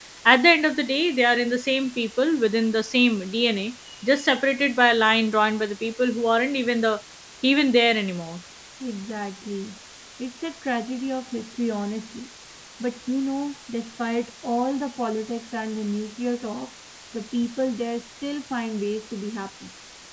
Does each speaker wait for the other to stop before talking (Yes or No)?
Yes